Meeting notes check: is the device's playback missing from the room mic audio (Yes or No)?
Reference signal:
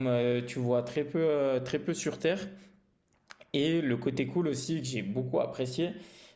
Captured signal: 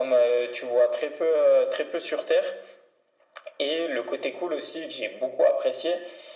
No